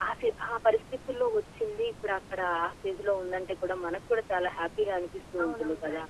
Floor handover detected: Yes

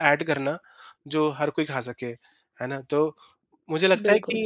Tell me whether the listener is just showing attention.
Yes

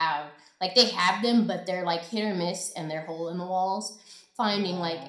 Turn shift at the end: No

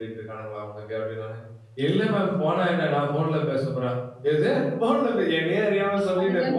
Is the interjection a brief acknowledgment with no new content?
Yes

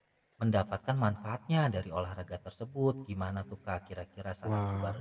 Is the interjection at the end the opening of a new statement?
Yes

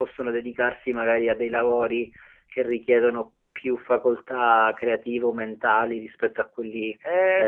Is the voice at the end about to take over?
Yes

